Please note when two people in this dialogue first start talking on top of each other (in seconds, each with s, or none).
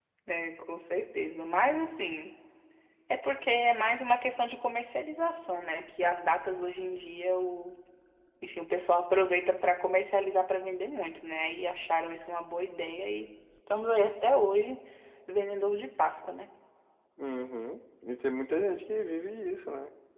none